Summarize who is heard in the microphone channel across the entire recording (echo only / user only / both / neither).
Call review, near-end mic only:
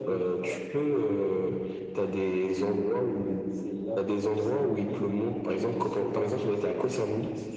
both